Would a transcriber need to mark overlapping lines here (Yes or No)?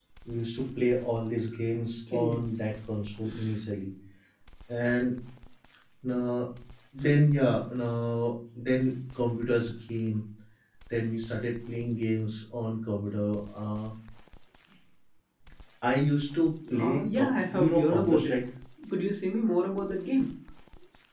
Yes